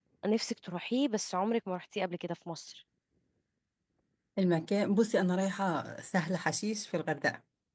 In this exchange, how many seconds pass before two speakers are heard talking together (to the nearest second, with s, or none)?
none